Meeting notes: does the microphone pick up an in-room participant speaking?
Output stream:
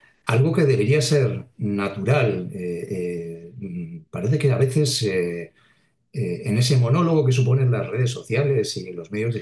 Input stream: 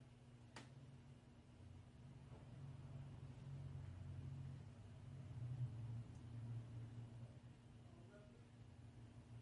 No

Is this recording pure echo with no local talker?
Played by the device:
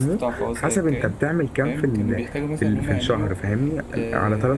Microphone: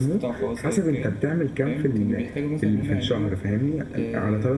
Yes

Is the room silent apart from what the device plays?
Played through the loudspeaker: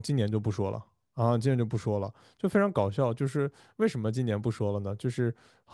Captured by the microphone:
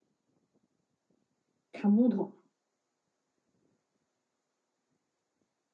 No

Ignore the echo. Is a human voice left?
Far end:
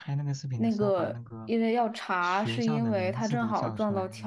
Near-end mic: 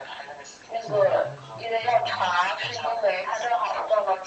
Yes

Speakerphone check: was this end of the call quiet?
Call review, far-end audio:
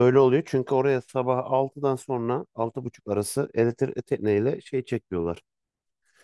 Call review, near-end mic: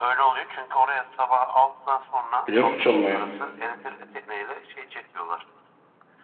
No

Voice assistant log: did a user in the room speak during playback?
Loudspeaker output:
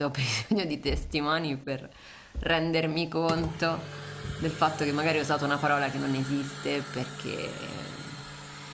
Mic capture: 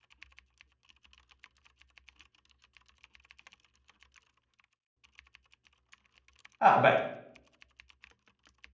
Yes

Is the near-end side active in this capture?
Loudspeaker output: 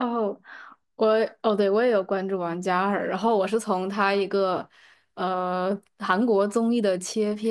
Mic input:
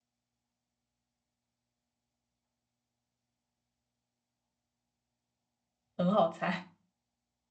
Yes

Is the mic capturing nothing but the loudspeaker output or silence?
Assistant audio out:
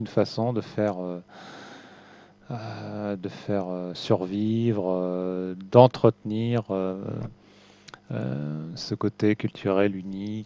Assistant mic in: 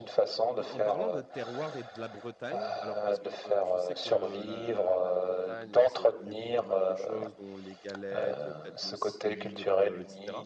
No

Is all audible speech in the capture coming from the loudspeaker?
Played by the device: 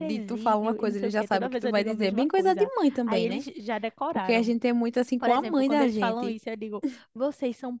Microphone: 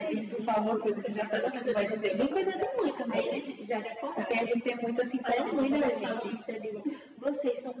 Yes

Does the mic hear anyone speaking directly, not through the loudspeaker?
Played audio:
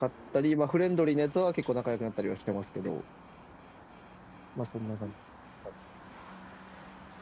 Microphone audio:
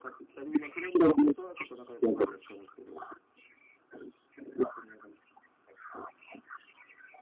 No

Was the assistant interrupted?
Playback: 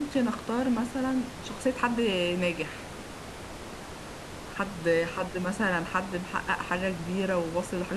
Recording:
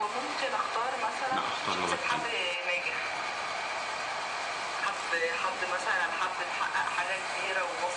Yes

